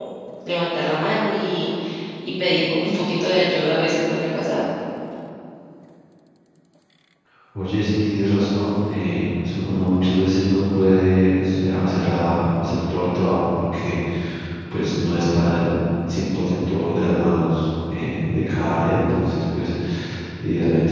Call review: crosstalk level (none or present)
none